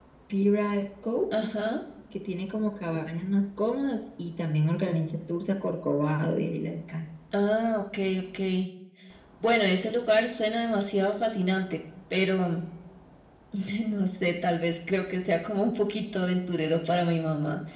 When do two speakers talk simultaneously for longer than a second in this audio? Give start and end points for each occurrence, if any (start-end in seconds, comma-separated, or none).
none